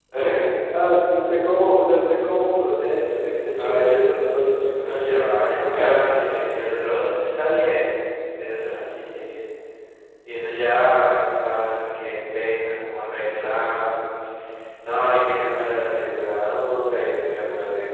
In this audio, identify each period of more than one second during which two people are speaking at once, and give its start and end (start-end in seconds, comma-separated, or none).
4.8-6.0